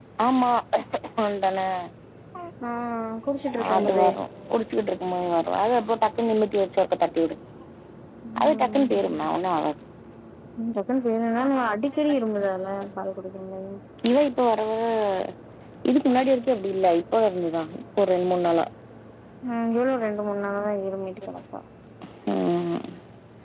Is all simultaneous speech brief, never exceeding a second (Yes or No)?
Yes